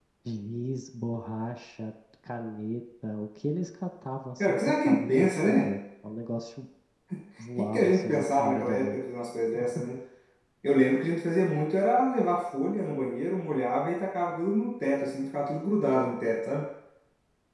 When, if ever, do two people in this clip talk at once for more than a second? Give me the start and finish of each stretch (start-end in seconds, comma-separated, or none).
4.4-5.7, 7.4-9.0